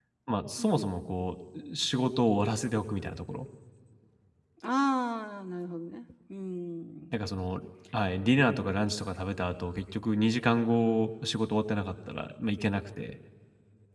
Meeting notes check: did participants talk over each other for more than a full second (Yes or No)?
No